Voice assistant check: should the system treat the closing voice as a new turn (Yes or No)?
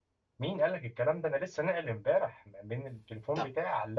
No